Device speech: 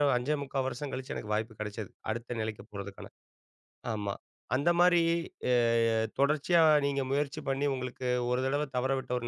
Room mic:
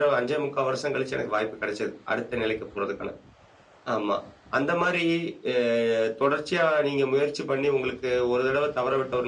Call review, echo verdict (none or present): present